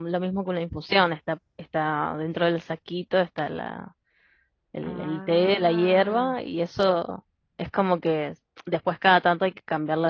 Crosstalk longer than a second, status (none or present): present